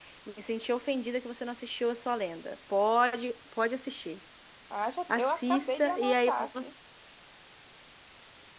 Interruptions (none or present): present